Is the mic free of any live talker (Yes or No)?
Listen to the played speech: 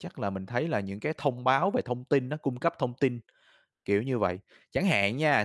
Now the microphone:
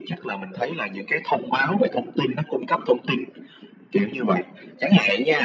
Yes